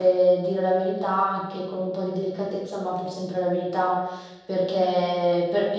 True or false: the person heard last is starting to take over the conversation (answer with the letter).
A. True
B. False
B